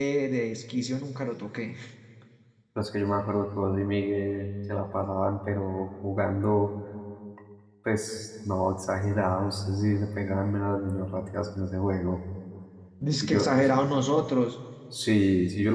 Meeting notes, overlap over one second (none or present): none